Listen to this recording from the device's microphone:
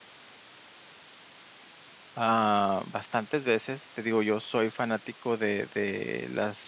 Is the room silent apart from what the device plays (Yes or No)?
No